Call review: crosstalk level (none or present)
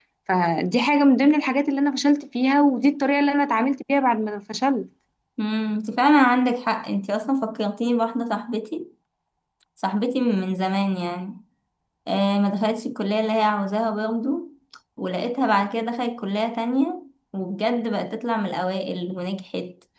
none